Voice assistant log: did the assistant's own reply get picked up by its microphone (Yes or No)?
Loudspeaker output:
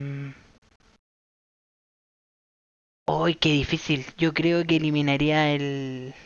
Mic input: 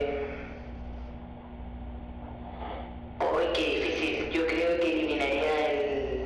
Yes